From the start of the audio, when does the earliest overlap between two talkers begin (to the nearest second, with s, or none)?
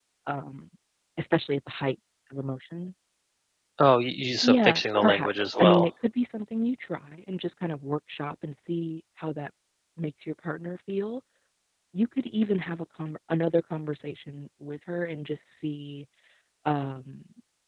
4 s